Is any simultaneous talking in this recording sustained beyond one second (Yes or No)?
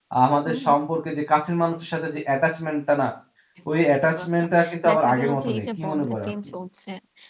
Yes